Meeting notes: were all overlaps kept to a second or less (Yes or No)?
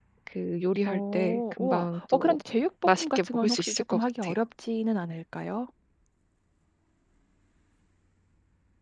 No